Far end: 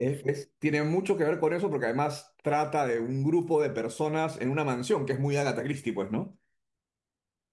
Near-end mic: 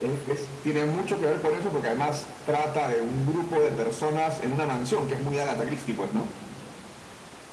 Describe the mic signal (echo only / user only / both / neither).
echo only